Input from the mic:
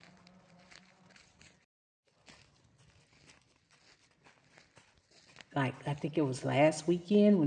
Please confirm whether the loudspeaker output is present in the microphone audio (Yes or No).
No